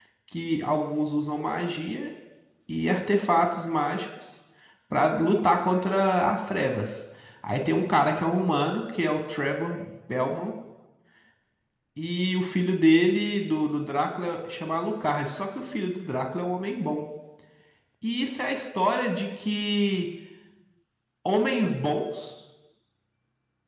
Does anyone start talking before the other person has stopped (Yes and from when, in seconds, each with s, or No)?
No